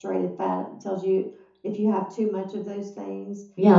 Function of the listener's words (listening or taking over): taking over